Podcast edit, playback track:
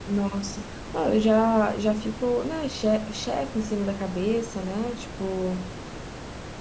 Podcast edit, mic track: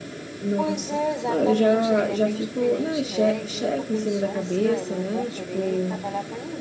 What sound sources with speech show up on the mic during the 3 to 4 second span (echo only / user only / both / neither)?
both